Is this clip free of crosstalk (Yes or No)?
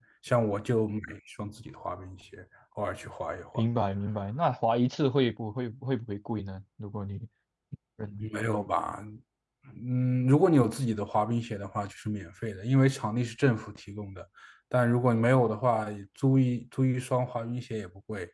Yes